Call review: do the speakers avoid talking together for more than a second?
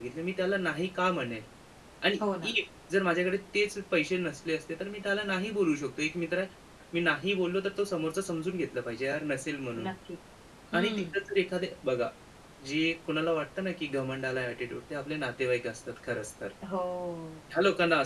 Yes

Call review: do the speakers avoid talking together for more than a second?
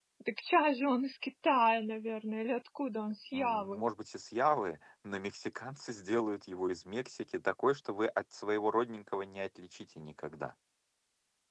Yes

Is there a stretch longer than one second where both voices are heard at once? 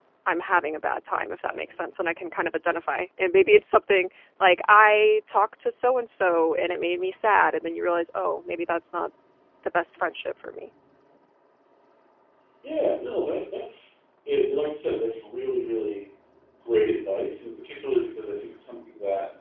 No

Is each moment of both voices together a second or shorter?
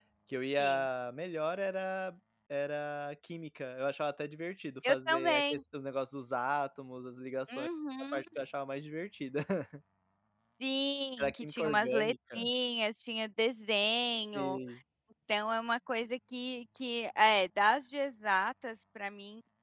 No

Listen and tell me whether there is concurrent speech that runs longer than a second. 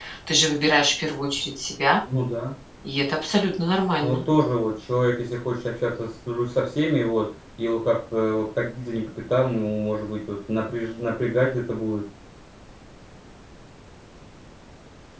No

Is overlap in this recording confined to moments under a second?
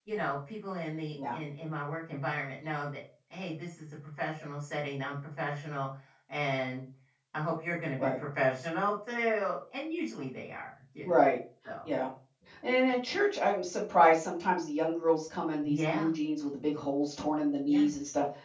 Yes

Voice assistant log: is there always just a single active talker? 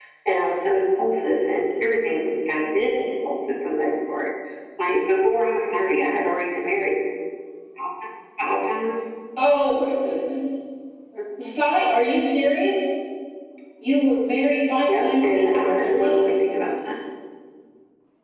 No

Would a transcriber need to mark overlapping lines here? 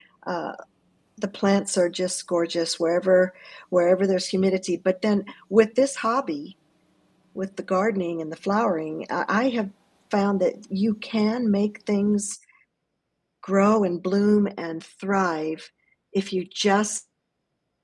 No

